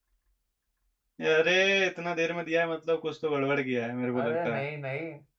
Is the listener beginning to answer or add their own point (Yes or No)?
Yes